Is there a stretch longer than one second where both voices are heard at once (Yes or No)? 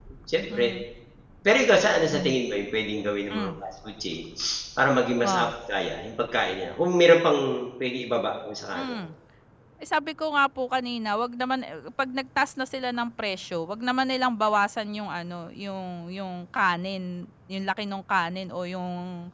No